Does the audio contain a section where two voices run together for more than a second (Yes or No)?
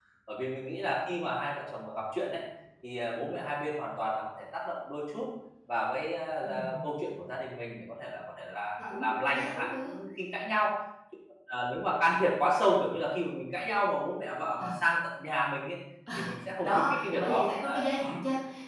Yes